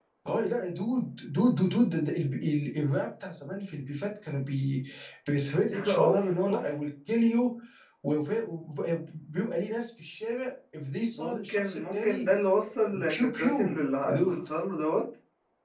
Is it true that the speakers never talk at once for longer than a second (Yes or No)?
No